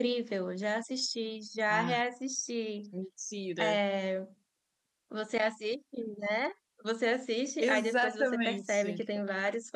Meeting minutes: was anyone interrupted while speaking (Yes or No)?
Yes